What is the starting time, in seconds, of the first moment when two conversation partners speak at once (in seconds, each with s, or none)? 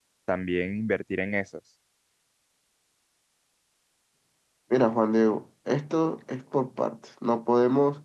none